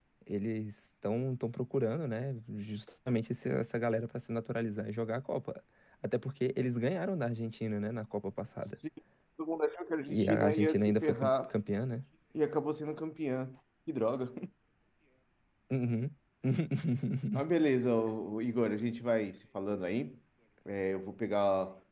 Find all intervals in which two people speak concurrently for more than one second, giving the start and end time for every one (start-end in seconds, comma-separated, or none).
10.1-11.5